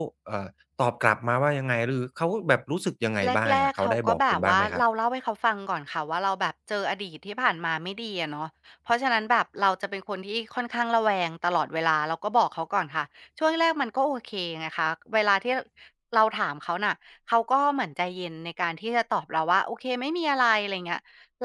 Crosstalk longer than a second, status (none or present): present